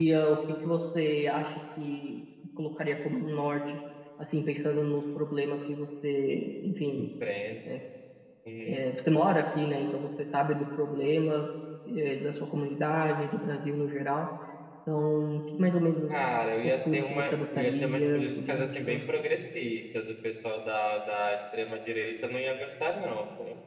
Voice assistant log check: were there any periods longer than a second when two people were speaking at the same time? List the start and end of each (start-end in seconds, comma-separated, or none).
16.6-19.0